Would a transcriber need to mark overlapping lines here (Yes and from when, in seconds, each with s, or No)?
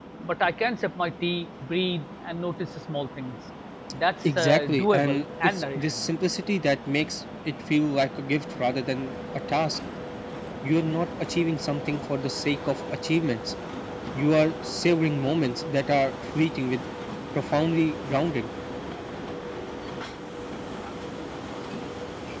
Yes, from 4.2 s